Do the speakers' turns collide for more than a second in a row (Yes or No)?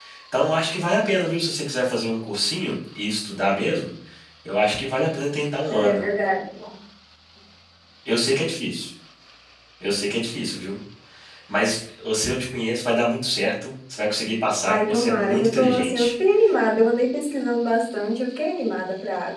Yes